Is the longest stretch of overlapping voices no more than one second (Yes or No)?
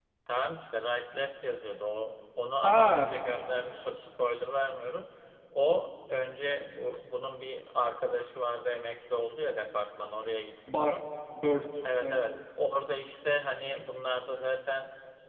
Yes